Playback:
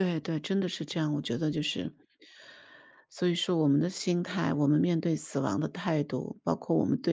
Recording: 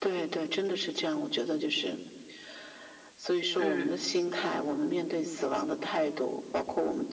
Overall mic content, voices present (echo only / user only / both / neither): both